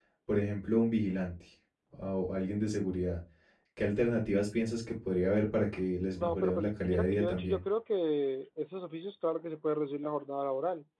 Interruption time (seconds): 6.1 s

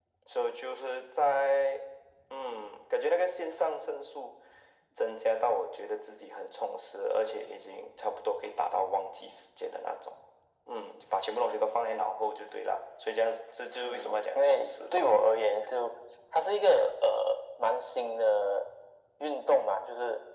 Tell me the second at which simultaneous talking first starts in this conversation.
13.8 s

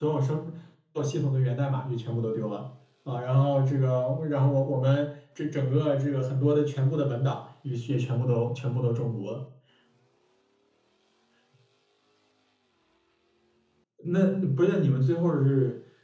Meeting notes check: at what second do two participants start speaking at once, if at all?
none

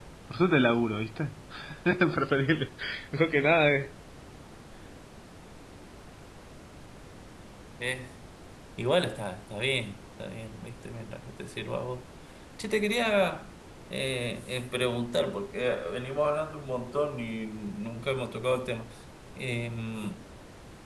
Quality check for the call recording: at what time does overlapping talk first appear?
none

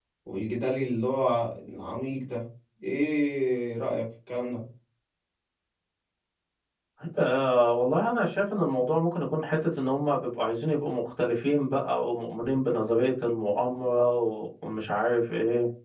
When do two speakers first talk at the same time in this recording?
none

